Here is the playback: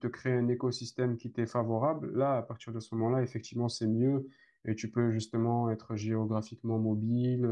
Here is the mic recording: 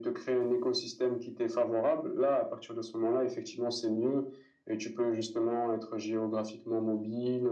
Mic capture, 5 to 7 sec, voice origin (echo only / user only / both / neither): echo only